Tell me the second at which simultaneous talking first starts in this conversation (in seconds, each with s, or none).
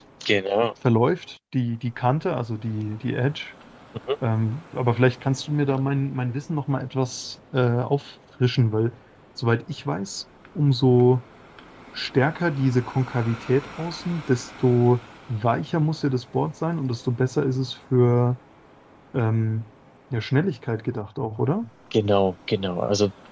none